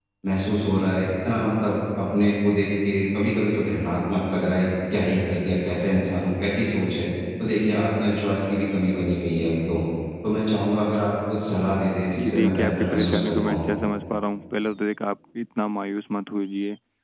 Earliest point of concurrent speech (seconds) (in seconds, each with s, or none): 12.2 s